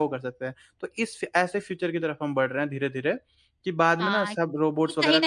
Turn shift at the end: Yes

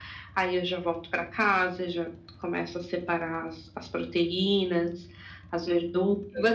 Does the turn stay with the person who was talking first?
No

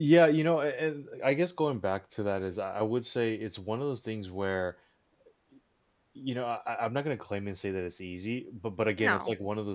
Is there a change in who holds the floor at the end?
No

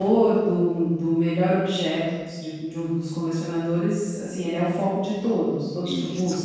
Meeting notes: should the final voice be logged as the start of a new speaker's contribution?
Yes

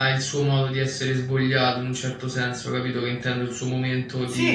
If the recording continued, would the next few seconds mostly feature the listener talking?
No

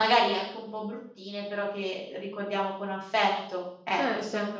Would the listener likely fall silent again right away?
No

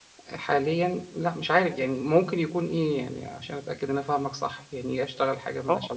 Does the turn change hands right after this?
Yes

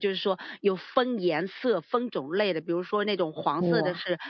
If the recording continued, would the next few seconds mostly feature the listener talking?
No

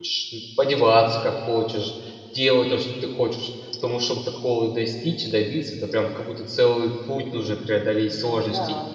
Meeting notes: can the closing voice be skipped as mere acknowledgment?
No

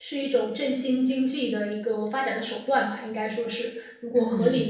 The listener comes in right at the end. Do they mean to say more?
Yes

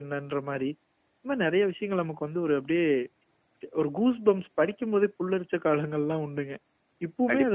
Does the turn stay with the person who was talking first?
No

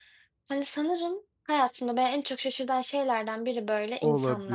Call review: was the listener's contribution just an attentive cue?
No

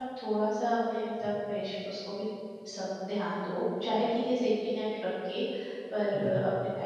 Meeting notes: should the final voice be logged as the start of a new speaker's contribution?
No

